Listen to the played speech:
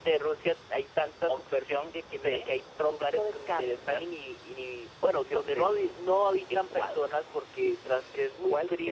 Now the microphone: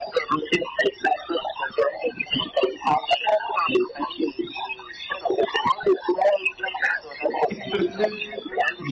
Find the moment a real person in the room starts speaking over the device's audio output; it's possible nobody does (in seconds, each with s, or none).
7.5 s